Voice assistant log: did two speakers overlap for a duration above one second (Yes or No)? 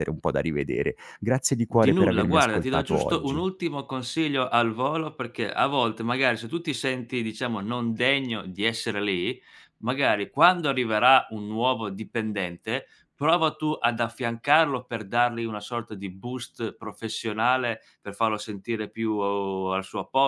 Yes